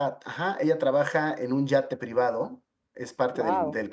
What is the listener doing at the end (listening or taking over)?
listening